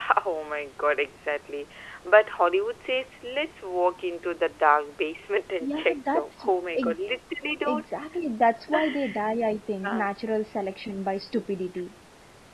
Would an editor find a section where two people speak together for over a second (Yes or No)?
Yes